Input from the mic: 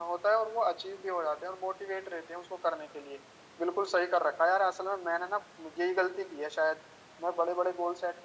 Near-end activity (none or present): none